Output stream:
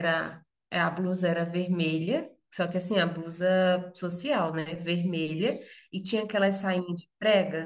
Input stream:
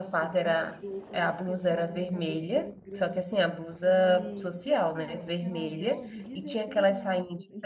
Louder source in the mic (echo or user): echo